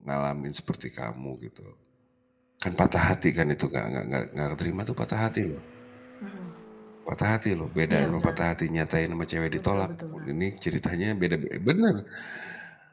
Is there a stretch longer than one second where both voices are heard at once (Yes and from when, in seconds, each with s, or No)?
No